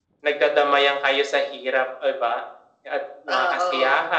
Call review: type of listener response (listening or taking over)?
listening